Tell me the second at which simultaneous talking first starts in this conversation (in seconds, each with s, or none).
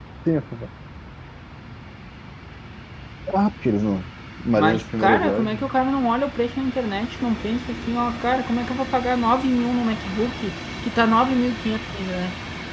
4.5 s